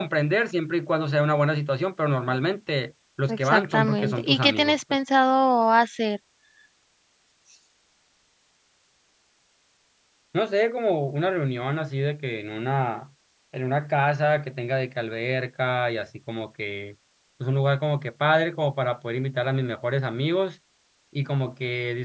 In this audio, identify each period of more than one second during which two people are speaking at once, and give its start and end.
3.3-4.8

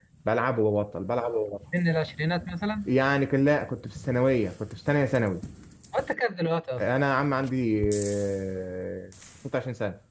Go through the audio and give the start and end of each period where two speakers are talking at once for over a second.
none

